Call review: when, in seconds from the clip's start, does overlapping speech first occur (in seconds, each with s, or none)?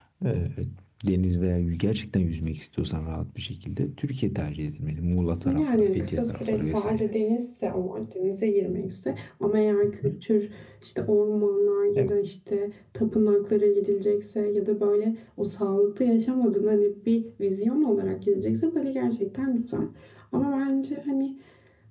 5.6 s